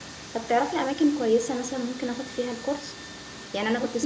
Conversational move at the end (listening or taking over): listening